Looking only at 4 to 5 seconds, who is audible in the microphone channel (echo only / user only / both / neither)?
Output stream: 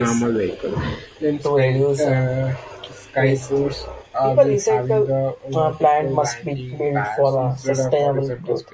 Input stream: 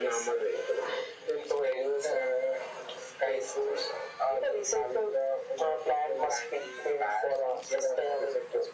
echo only